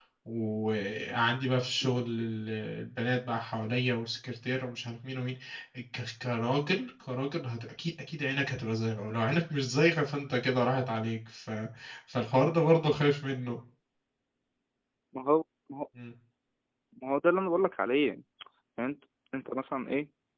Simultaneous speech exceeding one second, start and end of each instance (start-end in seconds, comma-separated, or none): none